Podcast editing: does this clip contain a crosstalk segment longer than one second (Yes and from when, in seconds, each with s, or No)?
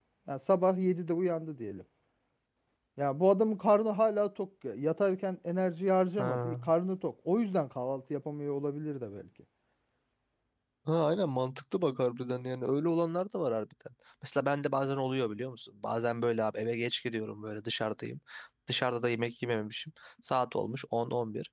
No